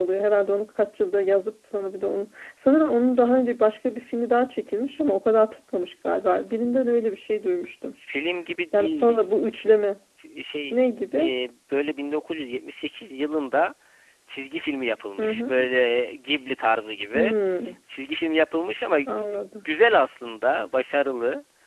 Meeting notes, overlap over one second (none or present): none